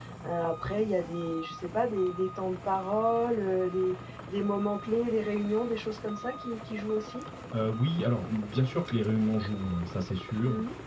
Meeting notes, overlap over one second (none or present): none